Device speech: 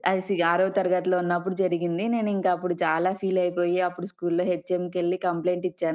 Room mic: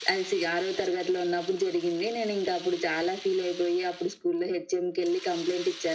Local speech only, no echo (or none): none